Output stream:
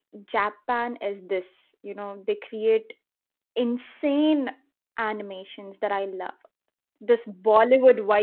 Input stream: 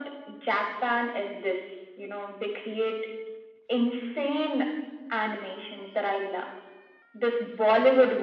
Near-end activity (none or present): none